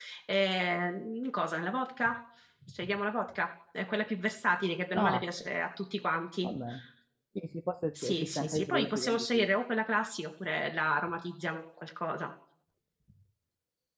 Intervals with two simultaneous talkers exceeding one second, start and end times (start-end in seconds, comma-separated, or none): 8.0-9.4